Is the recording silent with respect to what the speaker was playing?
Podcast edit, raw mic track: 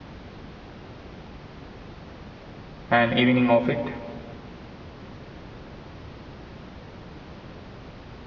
Yes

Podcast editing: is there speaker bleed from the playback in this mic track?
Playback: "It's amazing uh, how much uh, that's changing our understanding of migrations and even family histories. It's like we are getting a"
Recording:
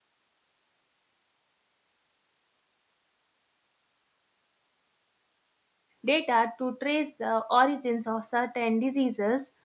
No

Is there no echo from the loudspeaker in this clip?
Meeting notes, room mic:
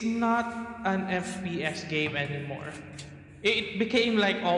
No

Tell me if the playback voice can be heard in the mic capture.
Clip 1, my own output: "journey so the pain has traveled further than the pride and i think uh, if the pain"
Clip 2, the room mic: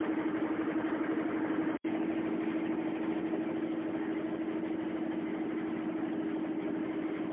No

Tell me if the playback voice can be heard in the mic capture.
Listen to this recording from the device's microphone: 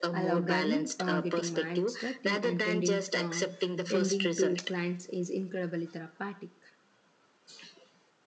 Yes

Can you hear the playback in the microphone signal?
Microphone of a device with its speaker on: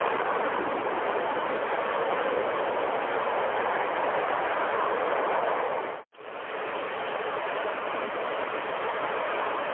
No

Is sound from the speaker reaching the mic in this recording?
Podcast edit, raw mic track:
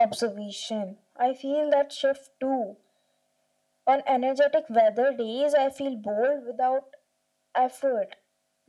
Yes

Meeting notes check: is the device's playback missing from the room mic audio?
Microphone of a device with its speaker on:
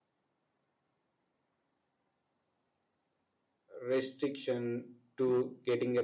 Yes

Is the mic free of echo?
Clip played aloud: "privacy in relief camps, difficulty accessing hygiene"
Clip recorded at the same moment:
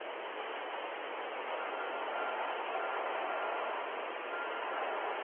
Yes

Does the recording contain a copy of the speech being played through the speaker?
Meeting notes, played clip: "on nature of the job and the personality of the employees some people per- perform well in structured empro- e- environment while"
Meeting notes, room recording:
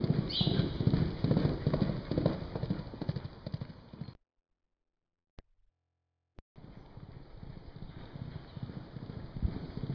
No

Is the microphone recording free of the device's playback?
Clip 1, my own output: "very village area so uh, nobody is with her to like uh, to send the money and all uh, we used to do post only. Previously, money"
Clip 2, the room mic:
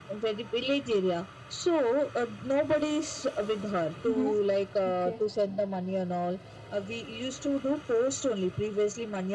No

